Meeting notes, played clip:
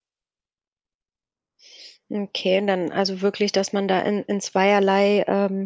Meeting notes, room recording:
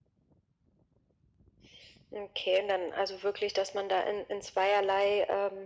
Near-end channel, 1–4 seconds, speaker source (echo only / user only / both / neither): echo only